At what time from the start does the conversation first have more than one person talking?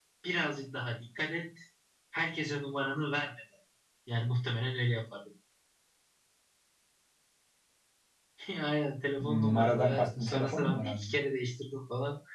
9.2 s

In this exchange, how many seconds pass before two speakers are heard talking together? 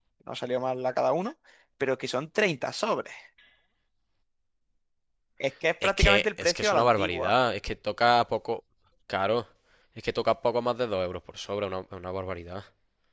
5.8 s

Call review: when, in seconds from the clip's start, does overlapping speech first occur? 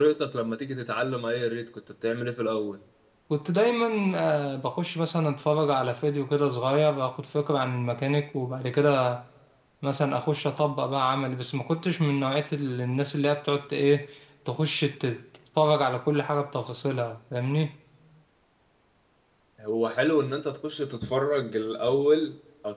none

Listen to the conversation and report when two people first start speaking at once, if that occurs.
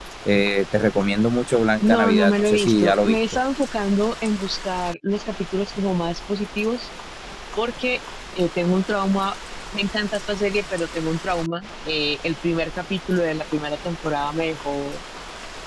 1.8 s

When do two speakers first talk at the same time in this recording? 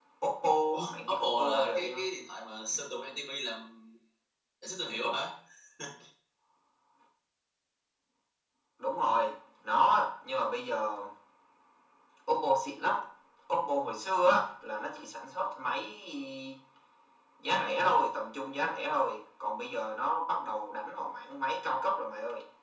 0.7 s

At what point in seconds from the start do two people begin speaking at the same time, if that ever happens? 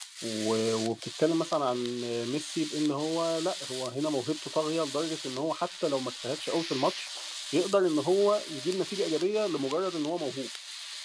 none

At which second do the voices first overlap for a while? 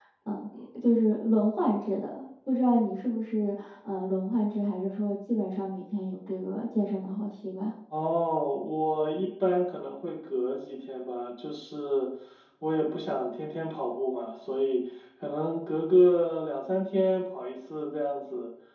none

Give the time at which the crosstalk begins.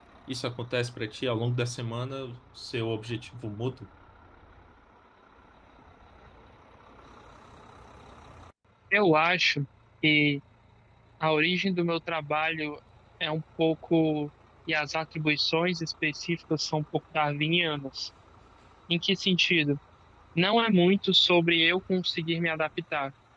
none

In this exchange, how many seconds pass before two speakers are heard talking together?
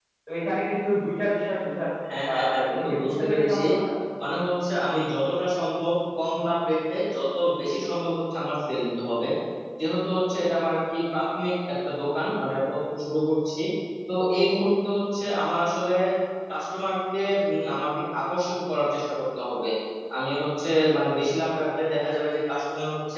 2.3 s

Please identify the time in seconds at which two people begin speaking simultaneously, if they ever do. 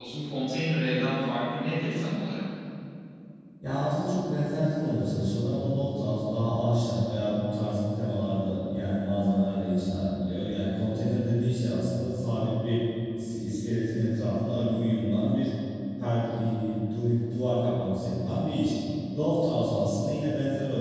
none

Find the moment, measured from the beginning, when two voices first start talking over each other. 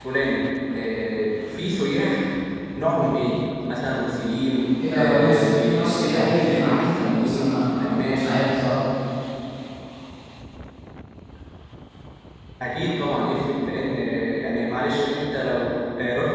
4.8 s

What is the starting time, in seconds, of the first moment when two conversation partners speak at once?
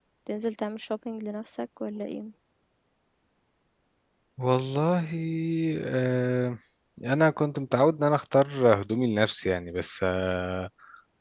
none

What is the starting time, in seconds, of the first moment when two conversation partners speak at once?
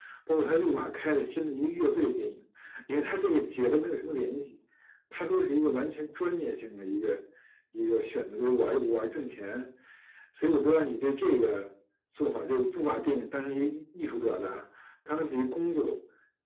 none

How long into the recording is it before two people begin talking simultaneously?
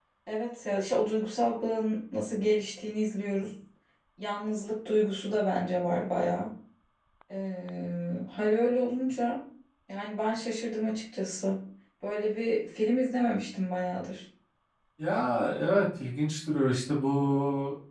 none

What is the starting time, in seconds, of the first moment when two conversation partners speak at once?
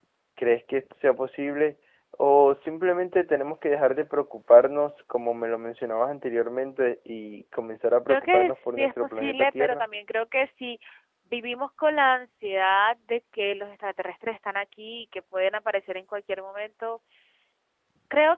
8.1 s

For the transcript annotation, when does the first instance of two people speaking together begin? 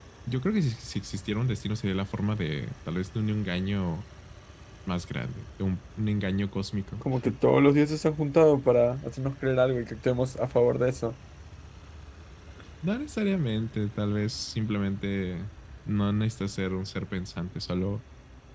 none

